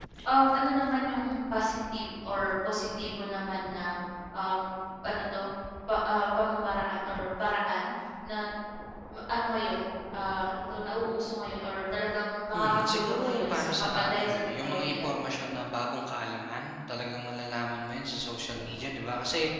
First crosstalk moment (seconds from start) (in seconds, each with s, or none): 12.5 s